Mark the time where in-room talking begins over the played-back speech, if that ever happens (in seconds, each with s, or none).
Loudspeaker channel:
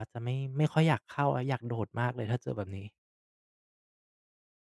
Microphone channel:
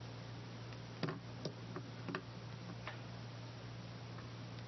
none